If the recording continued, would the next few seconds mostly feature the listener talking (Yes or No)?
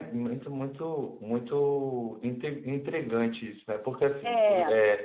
No